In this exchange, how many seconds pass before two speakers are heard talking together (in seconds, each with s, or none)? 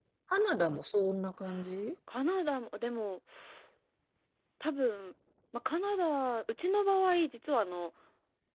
none